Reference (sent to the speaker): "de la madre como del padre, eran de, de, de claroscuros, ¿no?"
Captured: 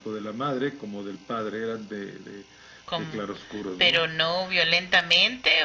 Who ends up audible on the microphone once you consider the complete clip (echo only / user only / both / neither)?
both